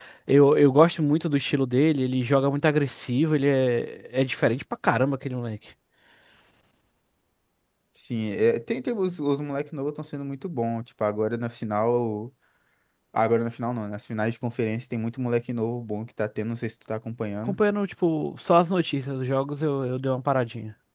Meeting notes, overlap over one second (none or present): none